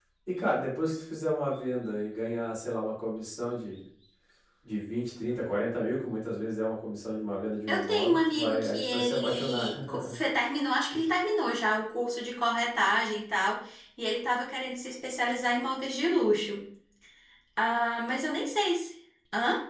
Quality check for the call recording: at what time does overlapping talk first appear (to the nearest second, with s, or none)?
8 s